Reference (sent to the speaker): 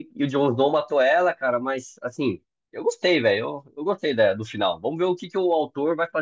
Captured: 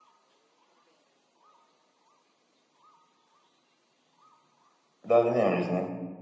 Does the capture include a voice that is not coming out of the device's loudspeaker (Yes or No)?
Yes